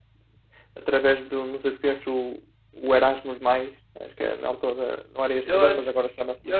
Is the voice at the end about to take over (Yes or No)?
Yes